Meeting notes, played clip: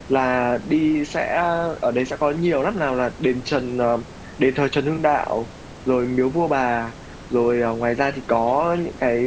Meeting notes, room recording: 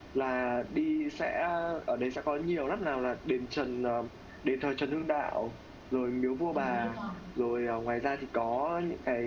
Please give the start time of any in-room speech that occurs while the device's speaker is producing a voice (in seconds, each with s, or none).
6.5 s